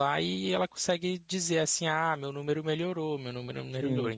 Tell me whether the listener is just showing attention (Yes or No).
No